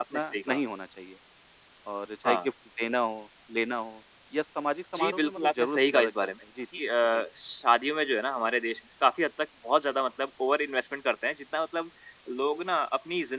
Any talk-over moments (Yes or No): Yes